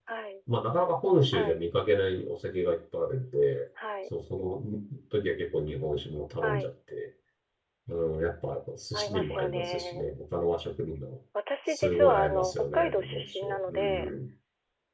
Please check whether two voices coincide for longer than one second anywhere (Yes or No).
Yes